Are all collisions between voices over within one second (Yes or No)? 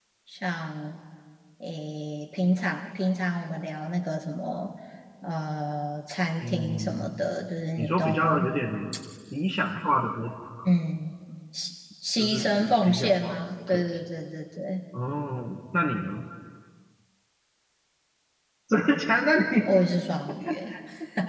No